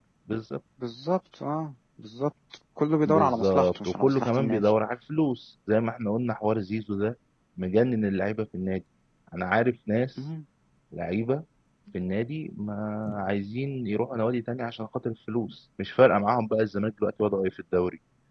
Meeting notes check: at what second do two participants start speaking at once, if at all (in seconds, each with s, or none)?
3.1 s